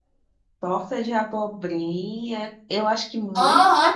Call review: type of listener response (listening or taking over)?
taking over